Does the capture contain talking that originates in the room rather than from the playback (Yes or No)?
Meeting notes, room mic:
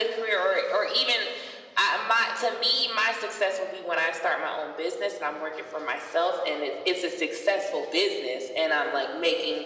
No